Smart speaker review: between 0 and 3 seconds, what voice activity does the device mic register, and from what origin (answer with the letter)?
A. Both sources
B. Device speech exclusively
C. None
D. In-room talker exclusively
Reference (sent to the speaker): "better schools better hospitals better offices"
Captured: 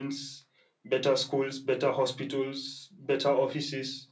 B